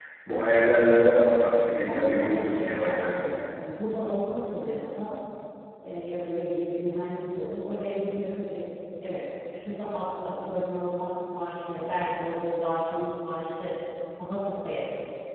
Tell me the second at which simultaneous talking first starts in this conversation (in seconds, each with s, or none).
1.8 s